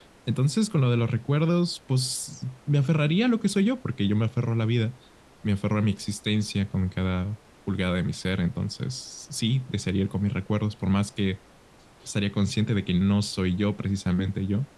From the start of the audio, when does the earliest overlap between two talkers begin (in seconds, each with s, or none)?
none